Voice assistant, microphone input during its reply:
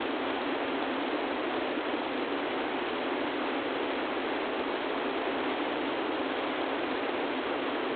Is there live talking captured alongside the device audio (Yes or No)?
No